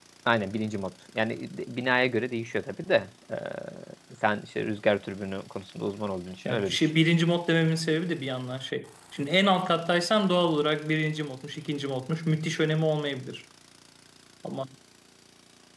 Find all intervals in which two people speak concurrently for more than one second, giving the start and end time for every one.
none

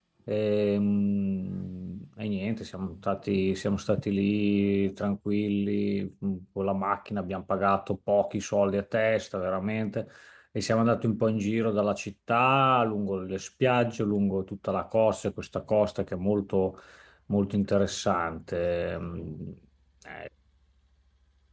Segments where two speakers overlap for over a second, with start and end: none

